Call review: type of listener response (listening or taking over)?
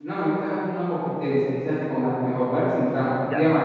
listening